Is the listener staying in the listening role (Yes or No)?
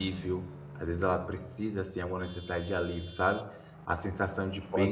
Yes